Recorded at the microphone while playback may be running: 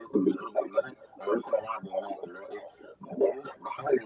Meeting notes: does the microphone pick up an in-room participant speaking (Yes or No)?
No